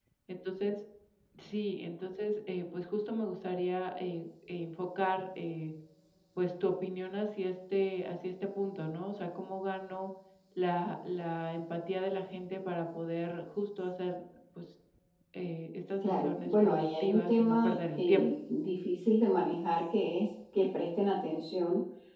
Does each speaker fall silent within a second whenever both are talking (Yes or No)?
No